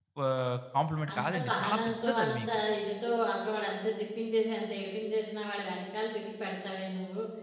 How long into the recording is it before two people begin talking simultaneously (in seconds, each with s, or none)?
1.1 s